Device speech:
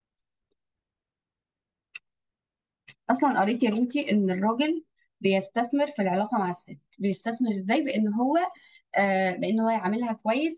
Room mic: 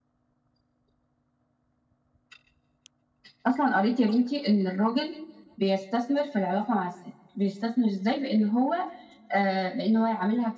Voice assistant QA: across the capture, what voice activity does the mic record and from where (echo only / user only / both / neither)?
echo only